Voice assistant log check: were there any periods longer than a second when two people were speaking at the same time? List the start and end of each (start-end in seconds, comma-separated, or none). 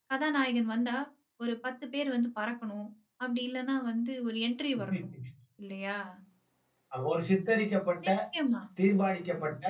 none